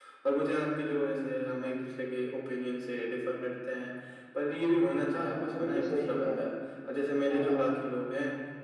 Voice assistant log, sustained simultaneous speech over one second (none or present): present